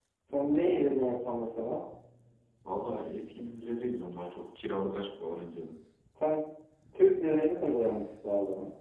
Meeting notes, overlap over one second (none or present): none